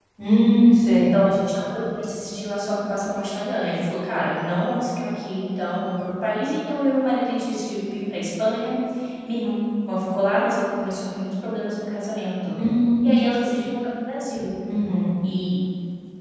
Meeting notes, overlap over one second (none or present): none